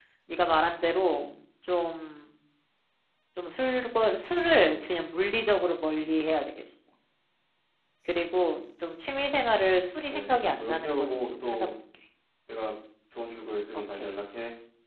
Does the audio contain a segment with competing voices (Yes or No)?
Yes